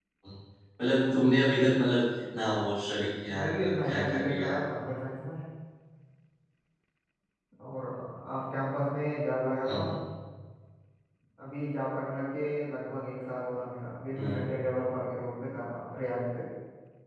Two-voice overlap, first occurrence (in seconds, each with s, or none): 3.4 s